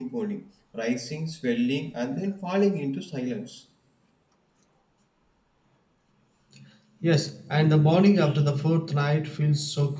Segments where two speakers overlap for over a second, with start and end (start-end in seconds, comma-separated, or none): none